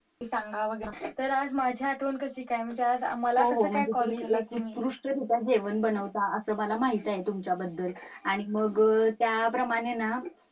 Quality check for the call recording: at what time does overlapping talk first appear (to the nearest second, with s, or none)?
3 s